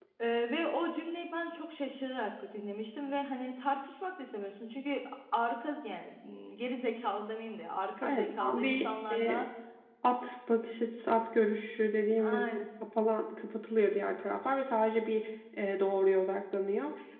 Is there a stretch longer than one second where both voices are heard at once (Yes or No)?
Yes